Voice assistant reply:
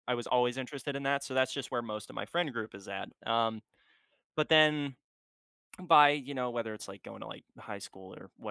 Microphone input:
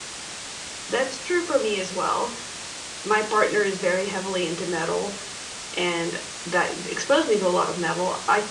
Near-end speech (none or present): present